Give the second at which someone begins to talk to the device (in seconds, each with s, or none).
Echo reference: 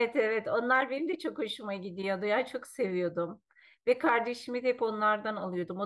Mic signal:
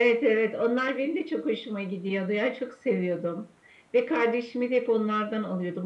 none